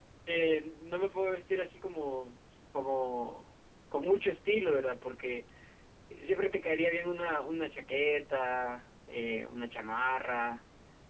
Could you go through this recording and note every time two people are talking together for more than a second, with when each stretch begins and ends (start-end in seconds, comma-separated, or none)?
none